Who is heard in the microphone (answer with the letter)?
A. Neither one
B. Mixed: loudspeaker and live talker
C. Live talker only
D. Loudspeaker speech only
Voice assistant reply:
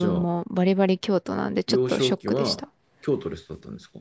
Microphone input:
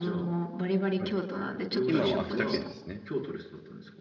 B